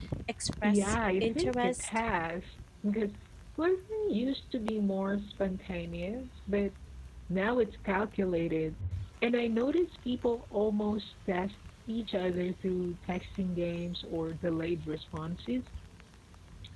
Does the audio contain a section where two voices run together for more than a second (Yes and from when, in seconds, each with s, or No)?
Yes, from 0.6 s